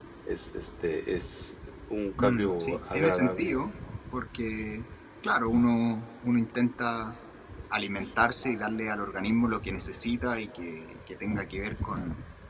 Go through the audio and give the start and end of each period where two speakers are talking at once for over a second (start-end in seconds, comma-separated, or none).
2.2-3.5